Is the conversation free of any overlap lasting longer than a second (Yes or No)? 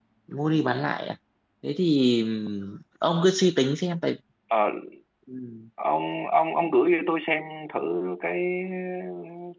Yes